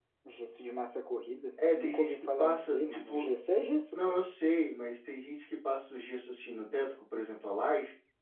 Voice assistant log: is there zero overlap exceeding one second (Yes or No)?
No